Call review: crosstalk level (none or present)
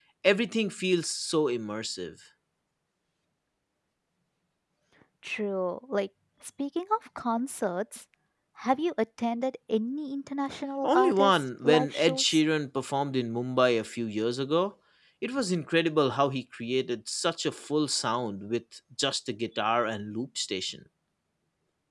present